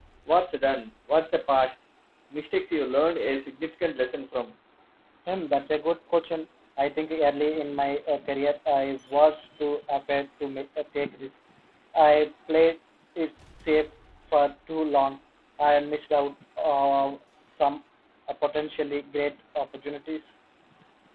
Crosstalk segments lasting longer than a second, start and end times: none

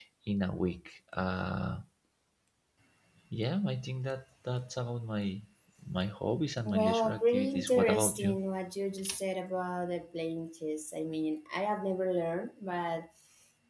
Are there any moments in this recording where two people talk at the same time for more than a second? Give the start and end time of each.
6.6-8.4

